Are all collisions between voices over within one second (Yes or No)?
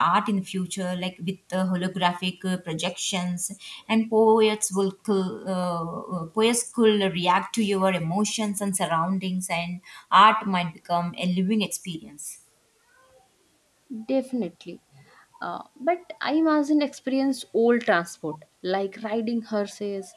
Yes